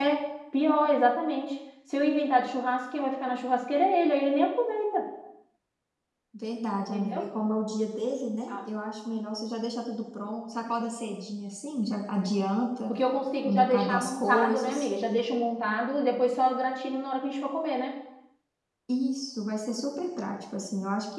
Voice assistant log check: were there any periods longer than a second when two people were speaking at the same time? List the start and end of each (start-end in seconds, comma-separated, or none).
13.4-14.9